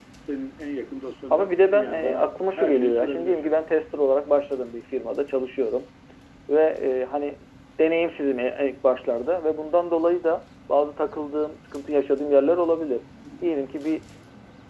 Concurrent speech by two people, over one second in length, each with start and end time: 1.3-3.5

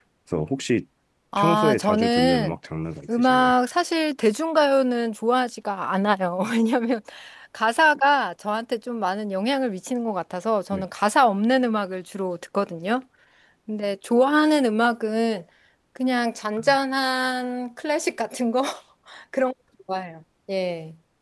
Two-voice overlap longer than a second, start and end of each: 1.4-2.6

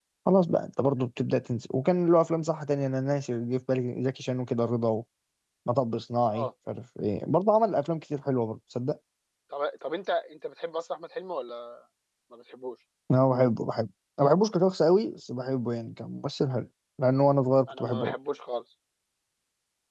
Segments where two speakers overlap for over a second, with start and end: none

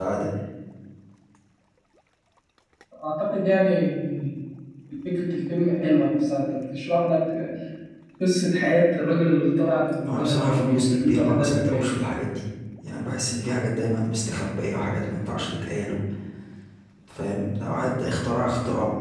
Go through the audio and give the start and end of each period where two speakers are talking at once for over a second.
10.1-11.9

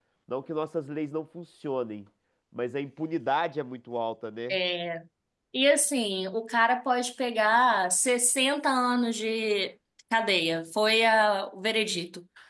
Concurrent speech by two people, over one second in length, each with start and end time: none

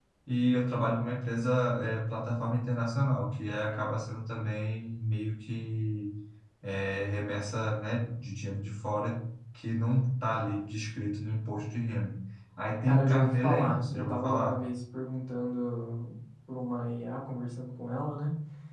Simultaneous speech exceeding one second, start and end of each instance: 12.9-14.7

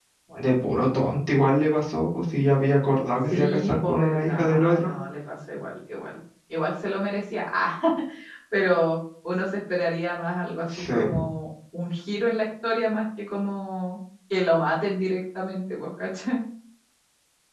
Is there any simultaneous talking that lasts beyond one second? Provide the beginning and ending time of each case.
3.3-4.9

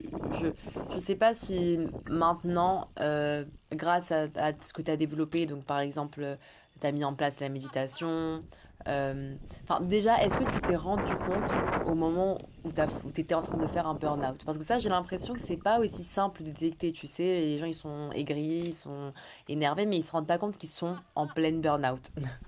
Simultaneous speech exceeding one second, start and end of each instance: none

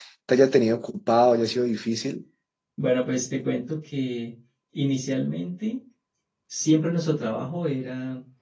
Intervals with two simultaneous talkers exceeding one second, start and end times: none

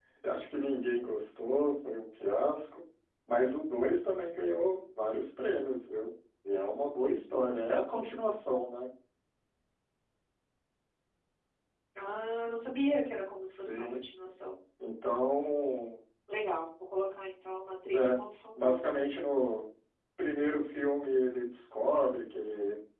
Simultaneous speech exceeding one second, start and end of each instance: none

